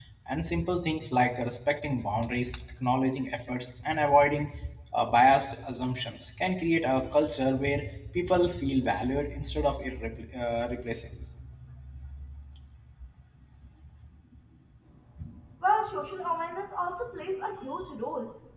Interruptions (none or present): none